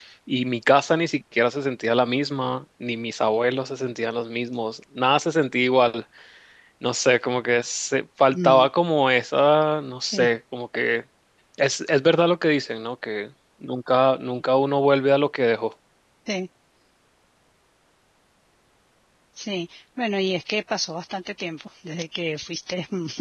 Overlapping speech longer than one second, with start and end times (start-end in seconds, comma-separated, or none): none